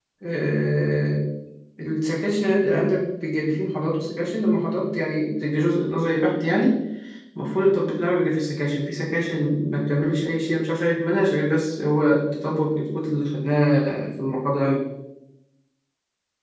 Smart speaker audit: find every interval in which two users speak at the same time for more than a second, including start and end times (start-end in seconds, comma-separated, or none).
none